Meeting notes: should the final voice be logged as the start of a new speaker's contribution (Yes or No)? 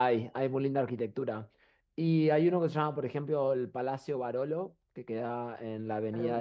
No